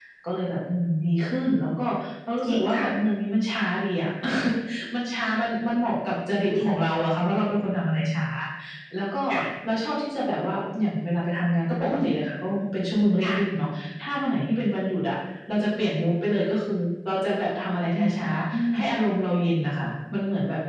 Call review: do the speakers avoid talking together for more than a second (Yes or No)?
Yes